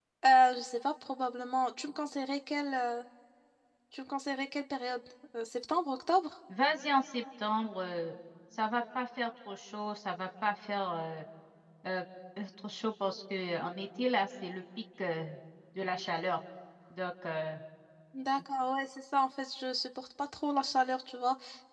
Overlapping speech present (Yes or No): No